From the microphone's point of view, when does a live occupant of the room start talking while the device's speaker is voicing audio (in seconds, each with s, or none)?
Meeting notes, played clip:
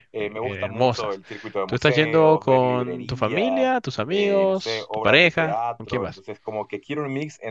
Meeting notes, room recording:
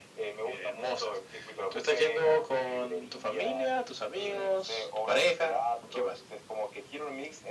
none